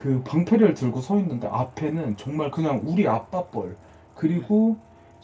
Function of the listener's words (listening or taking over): listening